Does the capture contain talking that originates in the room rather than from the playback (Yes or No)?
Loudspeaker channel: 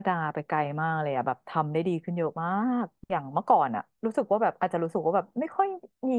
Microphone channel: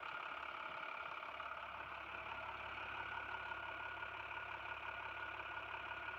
No